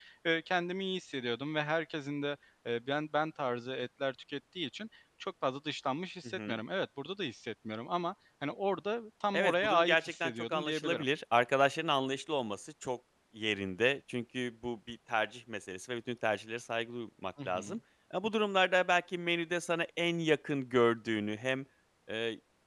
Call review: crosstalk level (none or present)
present